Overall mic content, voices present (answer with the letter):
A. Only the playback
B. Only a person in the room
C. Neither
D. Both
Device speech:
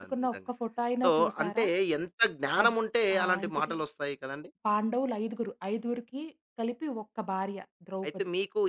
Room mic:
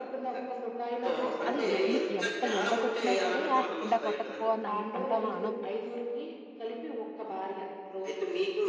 D